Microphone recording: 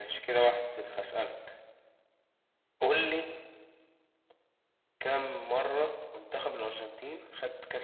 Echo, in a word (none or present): present